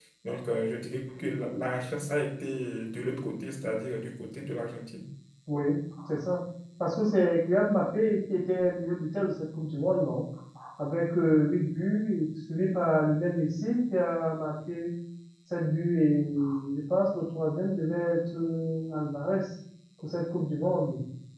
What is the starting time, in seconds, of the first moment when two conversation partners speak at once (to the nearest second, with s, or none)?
none